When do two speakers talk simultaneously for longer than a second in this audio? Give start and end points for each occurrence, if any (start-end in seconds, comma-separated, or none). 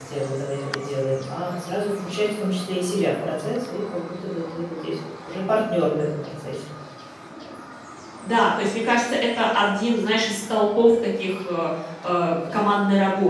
none